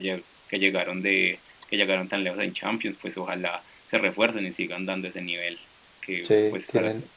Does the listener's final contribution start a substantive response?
No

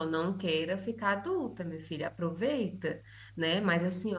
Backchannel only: Yes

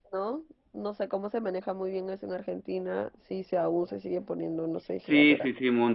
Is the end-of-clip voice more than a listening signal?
Yes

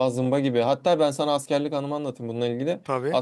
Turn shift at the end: No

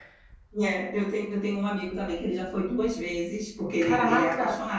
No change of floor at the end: Yes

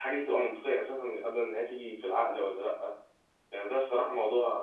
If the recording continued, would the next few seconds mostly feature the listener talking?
No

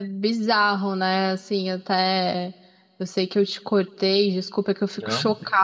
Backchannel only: Yes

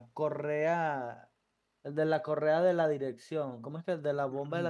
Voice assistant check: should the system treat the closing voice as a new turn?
Yes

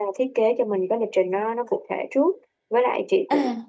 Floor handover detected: No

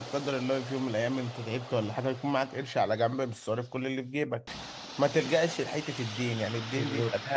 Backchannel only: Yes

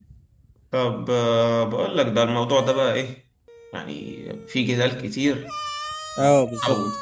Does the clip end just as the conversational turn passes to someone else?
No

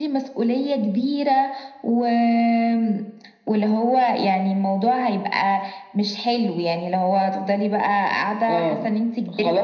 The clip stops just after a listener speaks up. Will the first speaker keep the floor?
No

